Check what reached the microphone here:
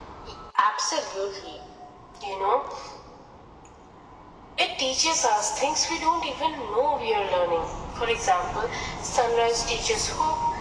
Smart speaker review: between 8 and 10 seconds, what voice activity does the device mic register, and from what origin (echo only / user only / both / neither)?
echo only